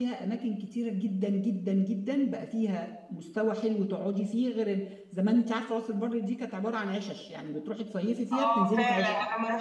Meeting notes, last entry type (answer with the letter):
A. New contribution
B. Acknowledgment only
A